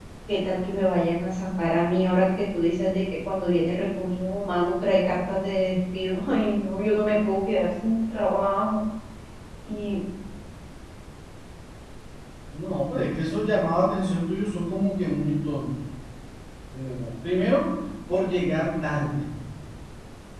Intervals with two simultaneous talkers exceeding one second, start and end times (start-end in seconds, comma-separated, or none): none